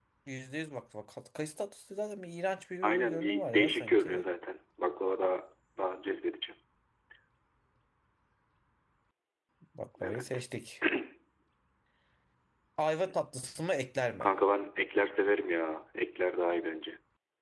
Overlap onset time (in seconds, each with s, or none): 2.8 s